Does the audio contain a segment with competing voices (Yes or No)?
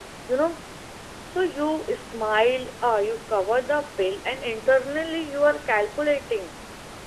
No